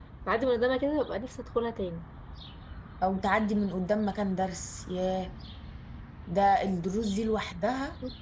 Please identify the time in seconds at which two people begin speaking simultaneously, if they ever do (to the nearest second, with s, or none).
none